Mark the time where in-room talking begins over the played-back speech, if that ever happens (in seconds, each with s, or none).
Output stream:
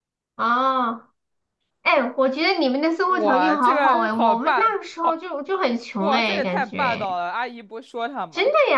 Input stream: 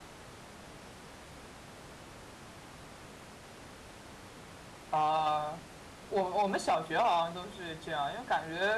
4.9 s